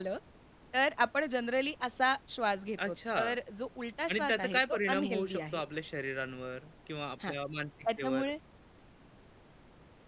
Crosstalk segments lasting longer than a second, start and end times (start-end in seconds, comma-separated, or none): 4.1-5.6